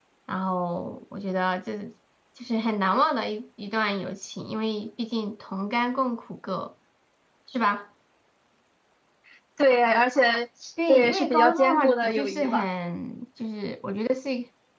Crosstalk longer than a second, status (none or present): present